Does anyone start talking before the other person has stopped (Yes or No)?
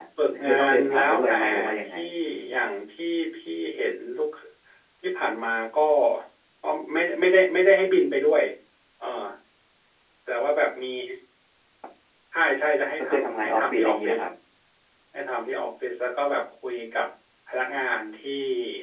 Yes